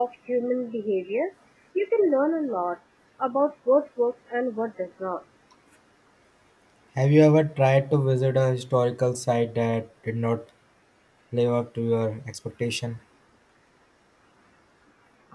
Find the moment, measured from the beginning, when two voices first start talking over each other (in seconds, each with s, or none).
none